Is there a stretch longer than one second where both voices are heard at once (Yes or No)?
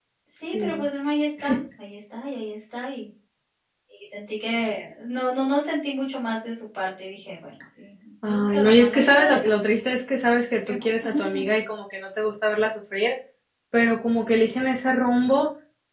Yes